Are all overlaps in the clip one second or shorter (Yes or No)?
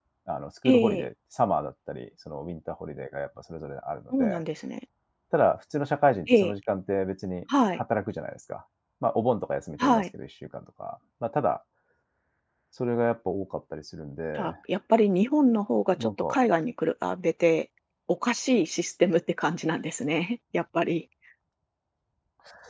Yes